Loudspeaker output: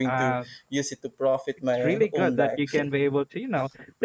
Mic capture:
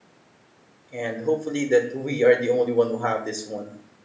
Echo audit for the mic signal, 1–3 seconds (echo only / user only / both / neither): user only